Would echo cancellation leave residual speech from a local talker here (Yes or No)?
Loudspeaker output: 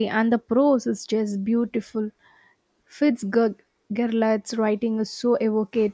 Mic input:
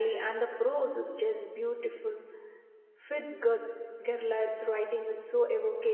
No